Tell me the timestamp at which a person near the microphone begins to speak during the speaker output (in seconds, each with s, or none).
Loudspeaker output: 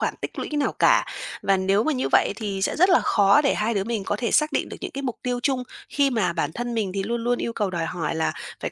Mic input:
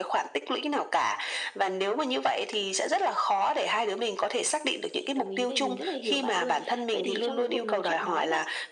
5.0 s